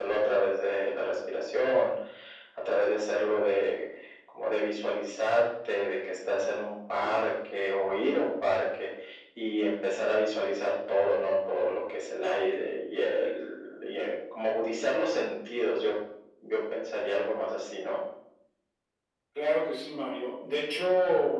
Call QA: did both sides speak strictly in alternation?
Yes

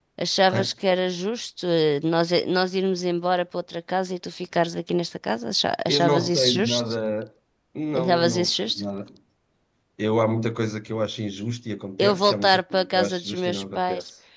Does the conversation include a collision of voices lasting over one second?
Yes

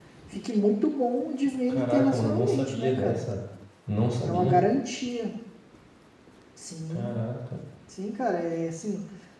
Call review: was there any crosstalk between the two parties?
Yes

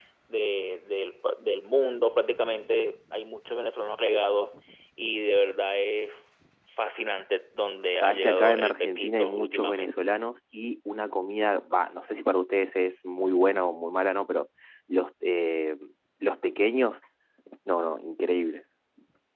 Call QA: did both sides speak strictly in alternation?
No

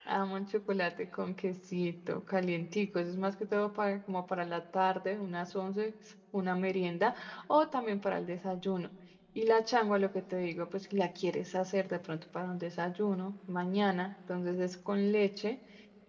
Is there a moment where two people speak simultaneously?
No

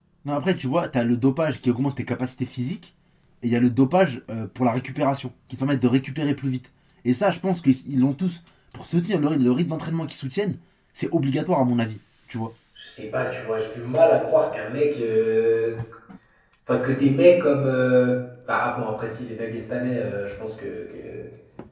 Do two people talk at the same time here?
No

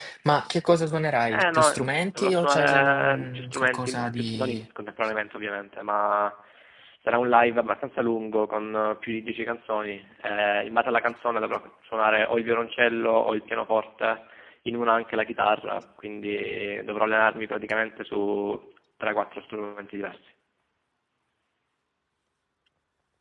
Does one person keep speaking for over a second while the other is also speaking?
Yes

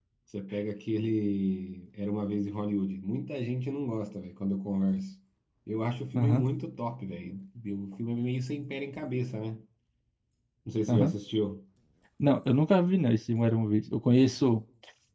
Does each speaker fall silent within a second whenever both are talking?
Yes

